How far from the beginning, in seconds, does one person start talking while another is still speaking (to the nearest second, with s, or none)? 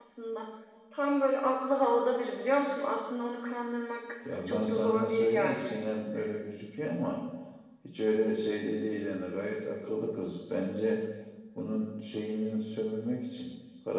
4 s